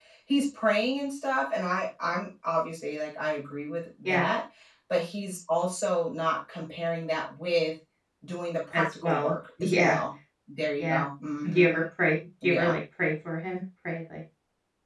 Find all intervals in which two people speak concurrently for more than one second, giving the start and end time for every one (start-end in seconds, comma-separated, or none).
8.7-10.0